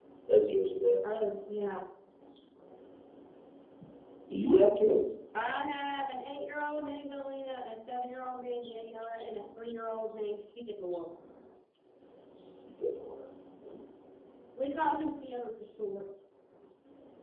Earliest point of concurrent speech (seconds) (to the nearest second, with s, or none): none